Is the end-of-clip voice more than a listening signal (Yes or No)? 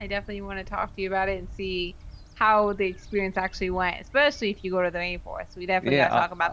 Yes